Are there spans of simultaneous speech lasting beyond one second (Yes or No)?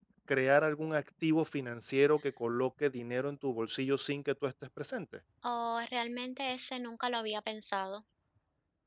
No